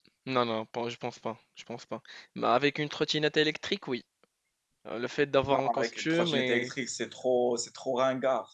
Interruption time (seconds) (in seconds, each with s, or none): 5.5 s